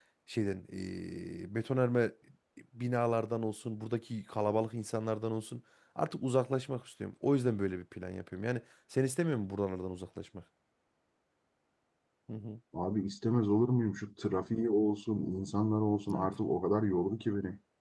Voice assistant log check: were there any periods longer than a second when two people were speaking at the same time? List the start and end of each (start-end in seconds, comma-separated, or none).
none